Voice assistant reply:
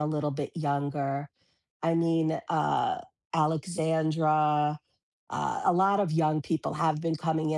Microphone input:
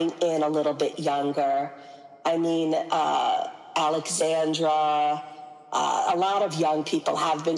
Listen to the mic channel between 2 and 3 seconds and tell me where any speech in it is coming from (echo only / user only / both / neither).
echo only